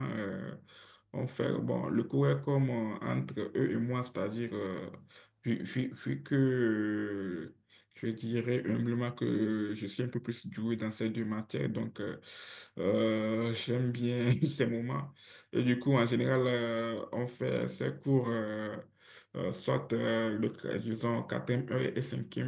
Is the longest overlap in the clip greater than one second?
No

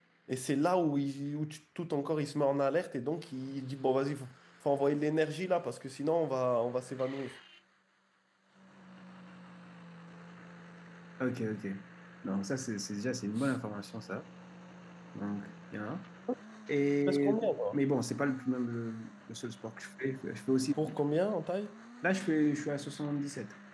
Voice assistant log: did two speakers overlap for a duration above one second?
No

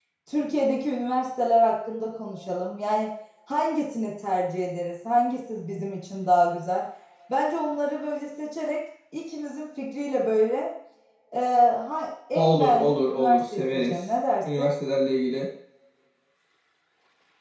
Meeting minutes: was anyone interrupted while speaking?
Yes, from 12.3 s

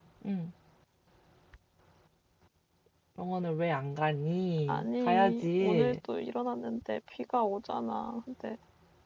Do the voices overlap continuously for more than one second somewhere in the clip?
Yes, from 4.7 s

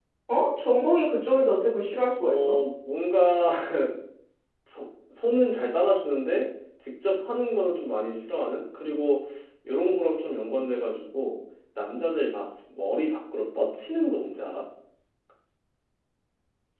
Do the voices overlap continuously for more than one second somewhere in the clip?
No

